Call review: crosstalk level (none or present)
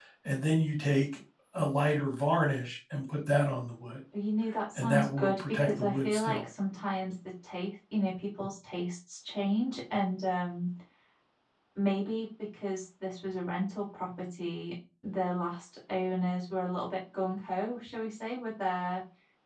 present